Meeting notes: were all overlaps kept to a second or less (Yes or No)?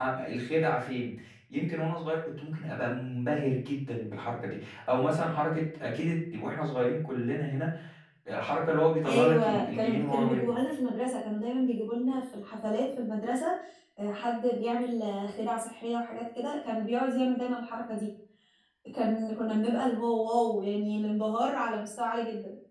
No